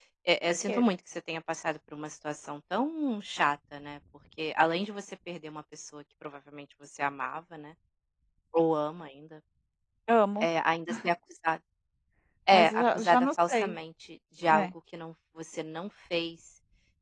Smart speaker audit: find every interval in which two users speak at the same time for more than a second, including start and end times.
12.5-13.8

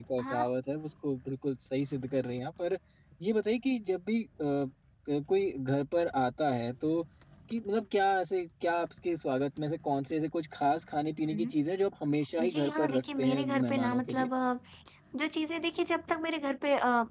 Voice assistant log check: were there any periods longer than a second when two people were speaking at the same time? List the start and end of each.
12.5-14.3

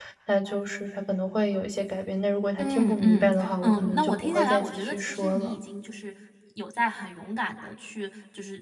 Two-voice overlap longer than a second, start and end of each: 2.6-5.6

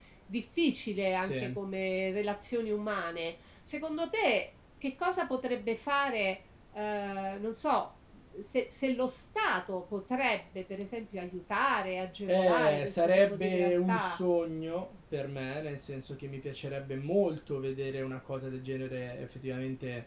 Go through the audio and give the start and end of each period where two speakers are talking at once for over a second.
12.3-14.2

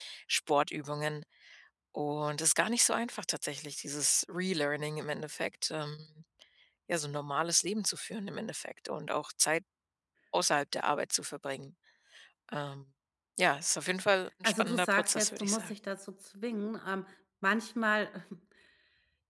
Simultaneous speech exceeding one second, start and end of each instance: 14.4-15.7

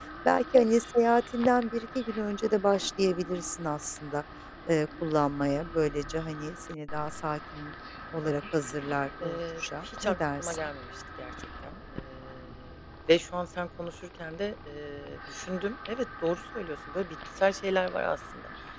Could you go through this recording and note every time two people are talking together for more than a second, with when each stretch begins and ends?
9.3-10.7

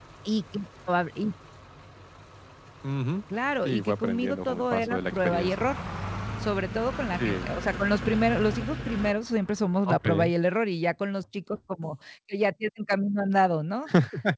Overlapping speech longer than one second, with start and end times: 3.6-5.7

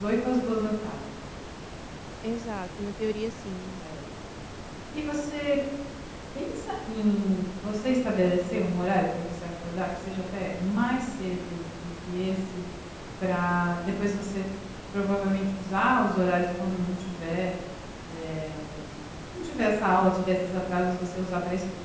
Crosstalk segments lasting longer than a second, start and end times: none

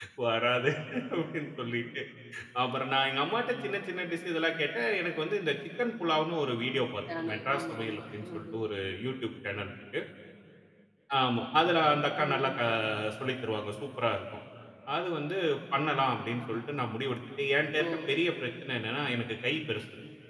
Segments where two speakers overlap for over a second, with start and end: 7.3-8.6

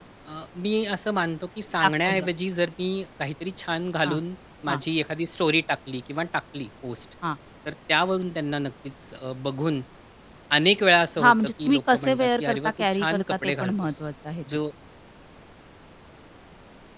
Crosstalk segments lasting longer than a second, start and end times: 11.2-14.0

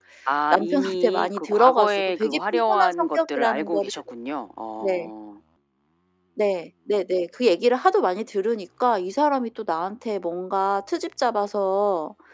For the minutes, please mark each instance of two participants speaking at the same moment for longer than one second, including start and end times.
0.5-3.9

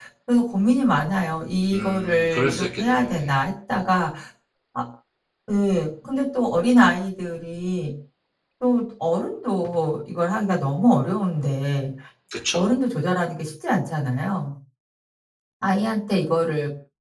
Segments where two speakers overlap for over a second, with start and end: 1.7-3.3

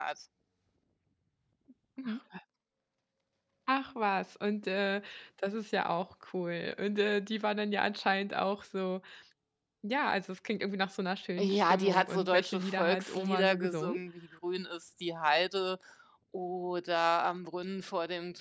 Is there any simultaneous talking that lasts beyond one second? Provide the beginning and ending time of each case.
11.4-14.0

